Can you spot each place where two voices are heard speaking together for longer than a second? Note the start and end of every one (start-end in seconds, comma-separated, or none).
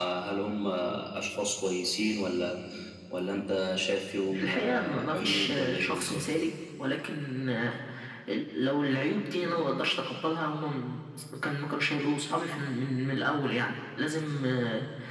4.4-6.2